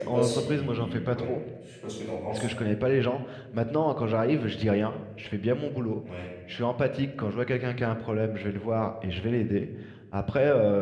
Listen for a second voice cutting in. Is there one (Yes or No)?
Yes